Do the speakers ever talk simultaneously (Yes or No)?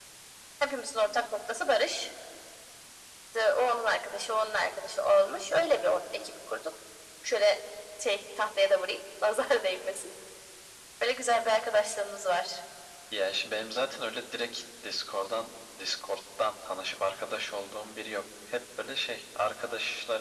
No